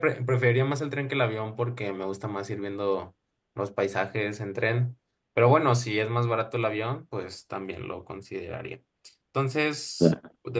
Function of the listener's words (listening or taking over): listening